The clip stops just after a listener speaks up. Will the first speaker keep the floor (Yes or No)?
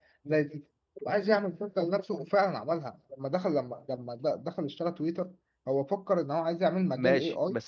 No